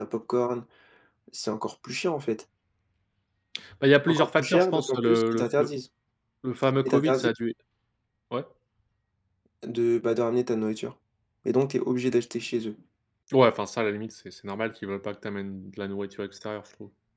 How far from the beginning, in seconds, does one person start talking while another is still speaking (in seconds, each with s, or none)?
4.1 s